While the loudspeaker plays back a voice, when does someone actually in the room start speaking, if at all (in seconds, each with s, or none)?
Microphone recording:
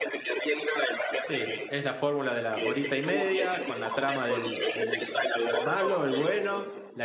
1.2 s